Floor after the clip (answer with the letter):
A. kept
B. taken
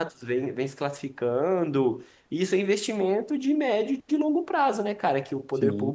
A